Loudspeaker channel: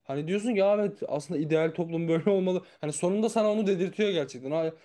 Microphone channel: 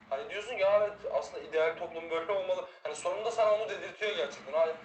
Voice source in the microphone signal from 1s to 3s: echo only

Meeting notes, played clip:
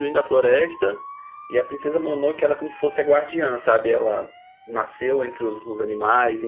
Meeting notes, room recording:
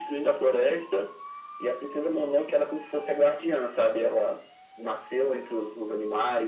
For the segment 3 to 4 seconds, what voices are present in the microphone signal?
echo only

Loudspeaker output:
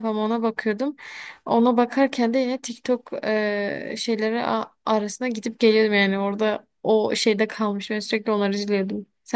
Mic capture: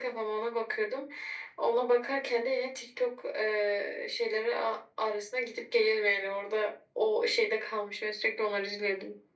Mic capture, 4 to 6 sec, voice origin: echo only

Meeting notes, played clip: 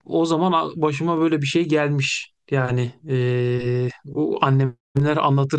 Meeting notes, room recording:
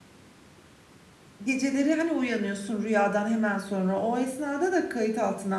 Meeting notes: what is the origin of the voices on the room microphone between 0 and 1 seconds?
neither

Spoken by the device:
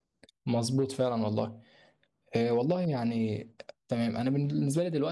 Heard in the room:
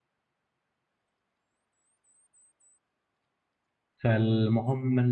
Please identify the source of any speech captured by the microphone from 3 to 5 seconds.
user only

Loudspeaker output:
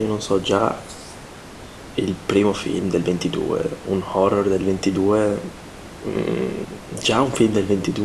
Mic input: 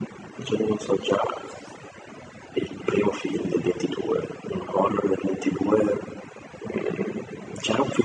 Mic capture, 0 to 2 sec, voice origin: echo only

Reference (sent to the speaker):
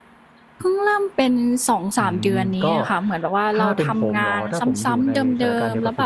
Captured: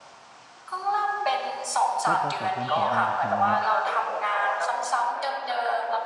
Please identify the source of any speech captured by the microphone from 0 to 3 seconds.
both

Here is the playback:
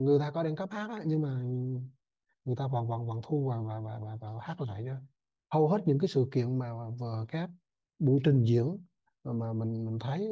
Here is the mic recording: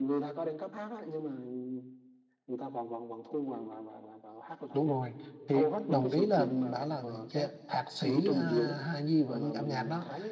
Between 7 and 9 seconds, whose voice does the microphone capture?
both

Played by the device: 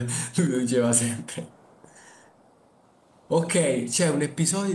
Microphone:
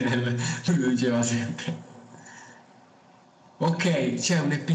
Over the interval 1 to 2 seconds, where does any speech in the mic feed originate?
echo only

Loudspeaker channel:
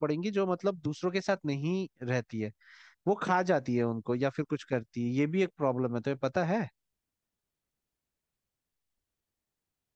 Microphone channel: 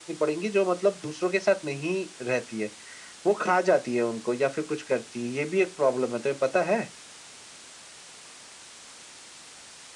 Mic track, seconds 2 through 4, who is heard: echo only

